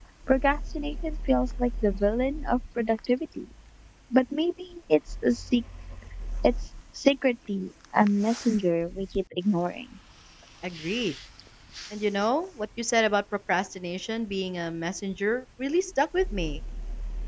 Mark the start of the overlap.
none

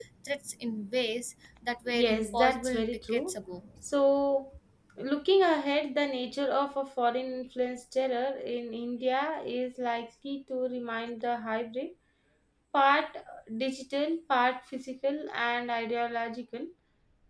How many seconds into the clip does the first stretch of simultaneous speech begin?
1.9 s

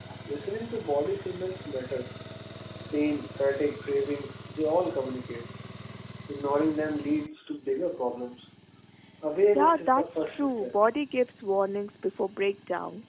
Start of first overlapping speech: 9.6 s

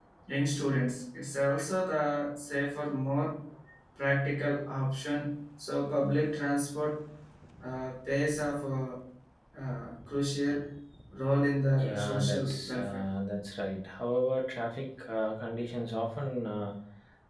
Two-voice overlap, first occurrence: 11.8 s

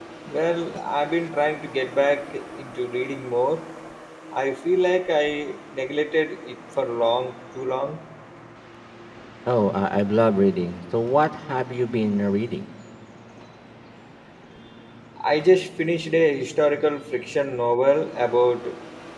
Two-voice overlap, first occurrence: none

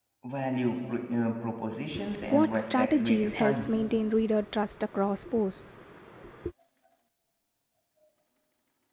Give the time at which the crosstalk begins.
2.1 s

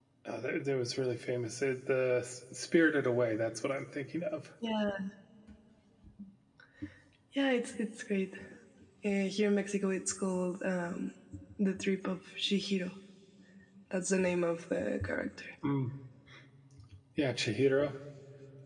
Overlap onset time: none

